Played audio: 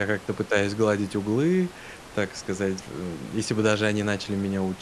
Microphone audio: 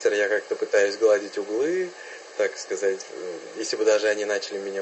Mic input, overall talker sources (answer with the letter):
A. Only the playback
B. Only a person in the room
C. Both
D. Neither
A